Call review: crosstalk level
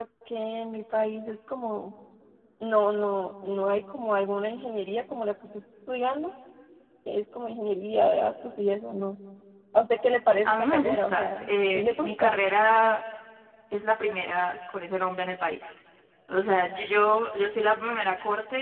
present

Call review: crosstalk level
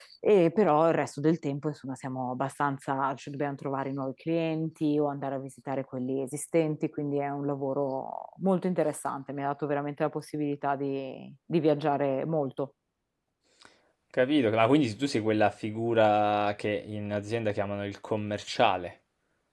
none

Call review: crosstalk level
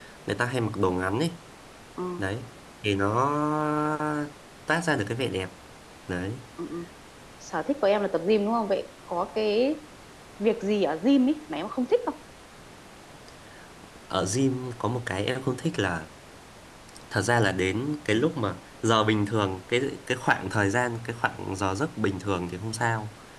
none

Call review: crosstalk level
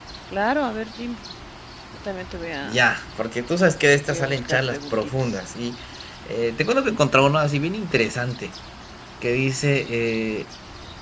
present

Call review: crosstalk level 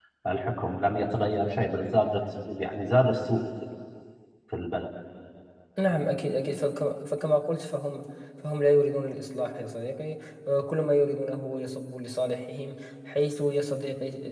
none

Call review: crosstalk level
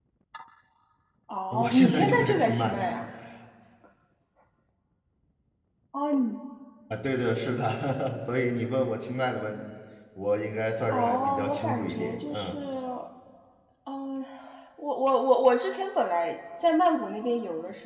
present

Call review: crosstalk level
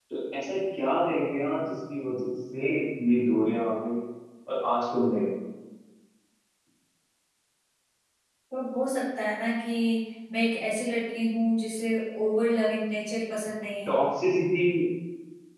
none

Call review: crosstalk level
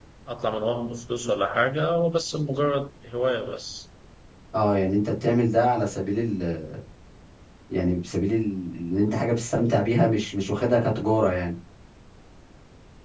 none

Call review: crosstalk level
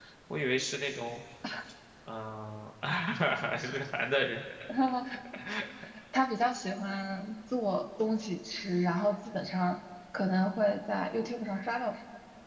none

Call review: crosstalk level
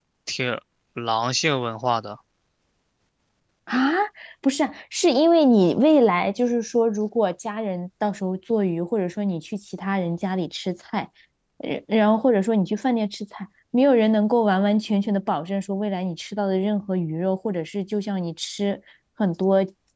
none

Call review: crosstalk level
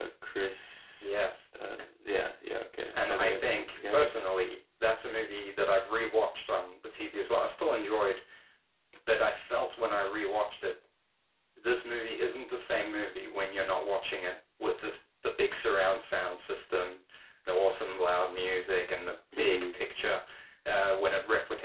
present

